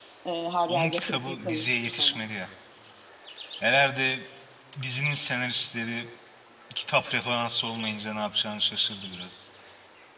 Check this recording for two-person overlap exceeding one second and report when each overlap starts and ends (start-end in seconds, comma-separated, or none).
0.7-2.2